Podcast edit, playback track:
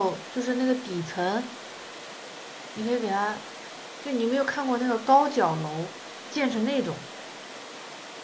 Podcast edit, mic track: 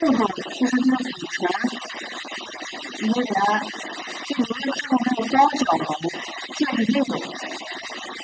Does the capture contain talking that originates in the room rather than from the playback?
No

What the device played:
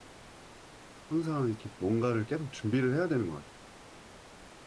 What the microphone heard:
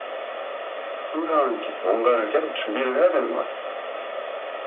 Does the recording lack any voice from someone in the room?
Yes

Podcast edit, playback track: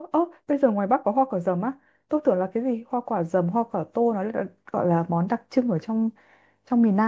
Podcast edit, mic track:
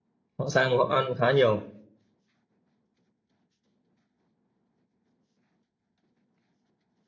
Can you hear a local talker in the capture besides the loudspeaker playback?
Yes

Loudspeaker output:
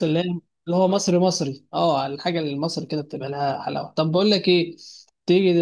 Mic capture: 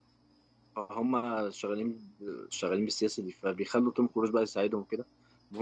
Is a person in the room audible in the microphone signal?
Yes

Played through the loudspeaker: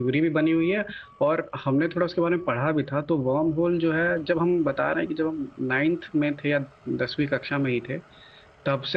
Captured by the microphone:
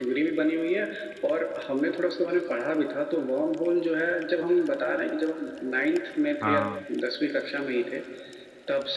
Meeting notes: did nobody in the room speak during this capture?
No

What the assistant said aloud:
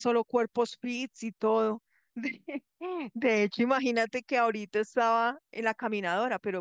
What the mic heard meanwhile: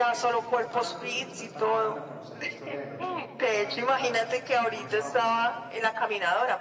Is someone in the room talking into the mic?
Yes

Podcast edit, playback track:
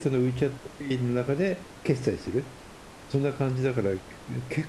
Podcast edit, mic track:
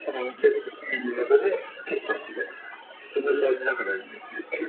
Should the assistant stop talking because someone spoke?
No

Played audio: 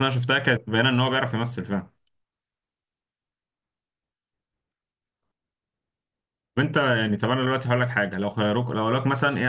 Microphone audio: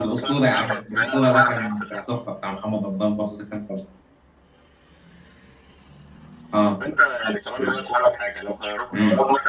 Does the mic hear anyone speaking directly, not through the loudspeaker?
Yes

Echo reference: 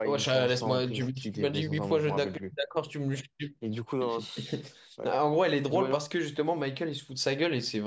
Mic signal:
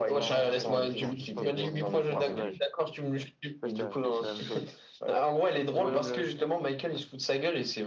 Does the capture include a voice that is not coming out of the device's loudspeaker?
Yes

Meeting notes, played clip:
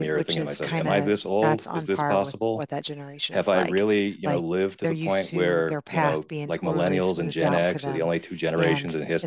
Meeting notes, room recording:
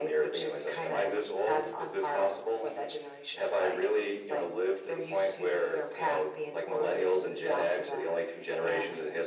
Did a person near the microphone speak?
No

